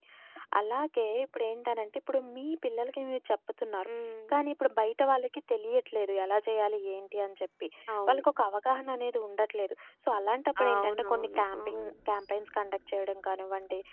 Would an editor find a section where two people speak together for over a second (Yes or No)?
Yes